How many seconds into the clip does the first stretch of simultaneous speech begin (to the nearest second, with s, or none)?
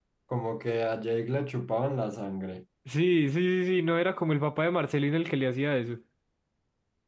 none